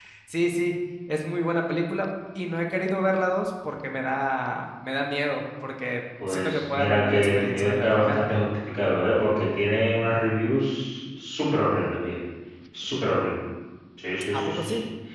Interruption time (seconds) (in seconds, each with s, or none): 6.3 s